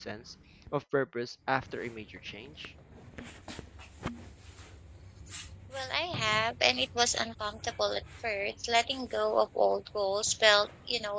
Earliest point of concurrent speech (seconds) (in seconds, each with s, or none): none